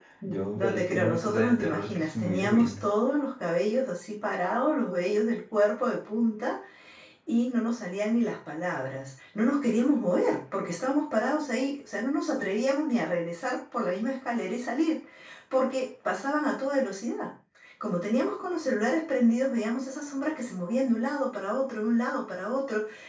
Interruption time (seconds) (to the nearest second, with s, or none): 1 s